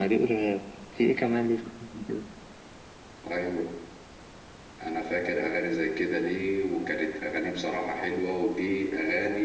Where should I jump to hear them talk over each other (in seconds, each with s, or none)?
none